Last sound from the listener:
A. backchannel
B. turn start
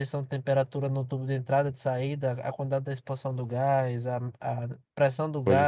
A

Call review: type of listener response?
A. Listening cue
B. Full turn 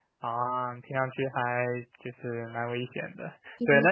A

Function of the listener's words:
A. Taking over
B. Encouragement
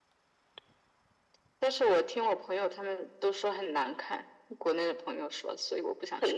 A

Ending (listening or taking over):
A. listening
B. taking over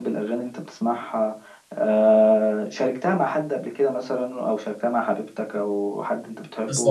B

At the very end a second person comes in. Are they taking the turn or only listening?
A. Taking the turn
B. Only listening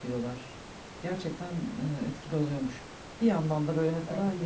B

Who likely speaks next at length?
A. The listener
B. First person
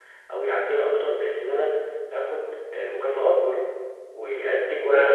A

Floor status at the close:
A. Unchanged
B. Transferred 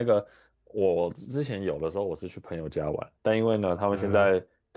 A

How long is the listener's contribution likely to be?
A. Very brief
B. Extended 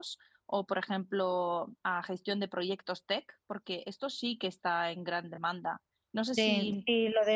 B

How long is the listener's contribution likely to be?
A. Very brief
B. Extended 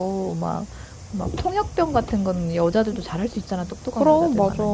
A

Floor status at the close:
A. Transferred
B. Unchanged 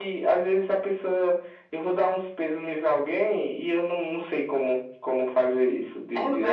A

